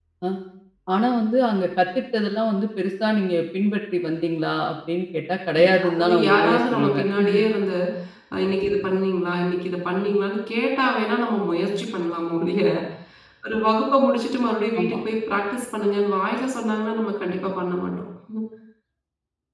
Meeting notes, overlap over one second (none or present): present